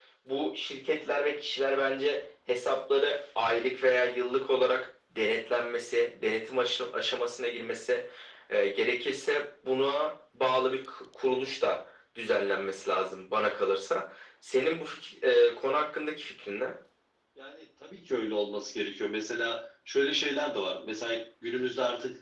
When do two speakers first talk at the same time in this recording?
none

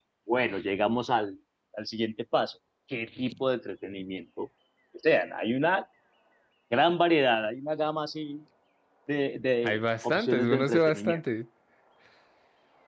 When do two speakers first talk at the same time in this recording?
9.6 s

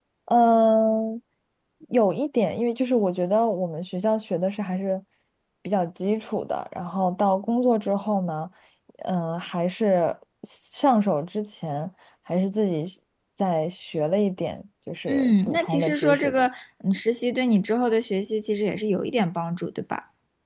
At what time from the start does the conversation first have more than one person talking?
15.1 s

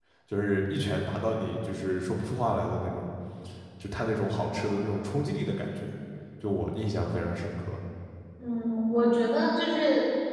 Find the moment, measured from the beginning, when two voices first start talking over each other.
none

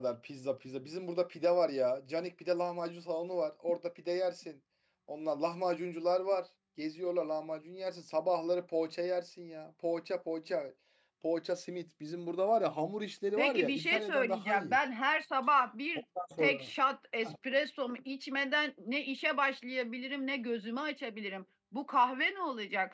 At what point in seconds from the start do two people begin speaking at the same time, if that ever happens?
13.4 s

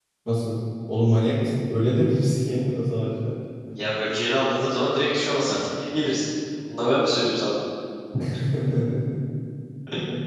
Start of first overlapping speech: none

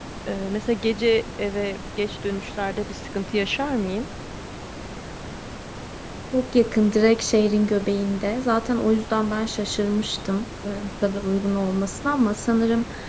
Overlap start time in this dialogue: none

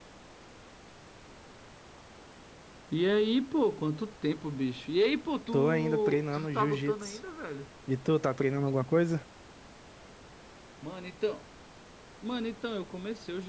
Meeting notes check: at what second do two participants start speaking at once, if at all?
5.5 s

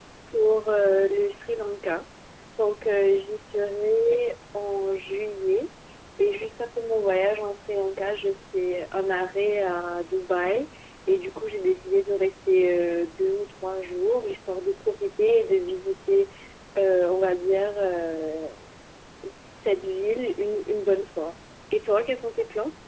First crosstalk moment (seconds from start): none

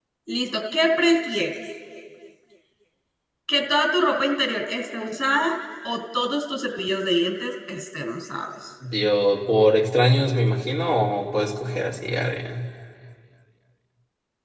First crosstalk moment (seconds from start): none

